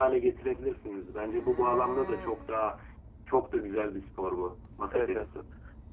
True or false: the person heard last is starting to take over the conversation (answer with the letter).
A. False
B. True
B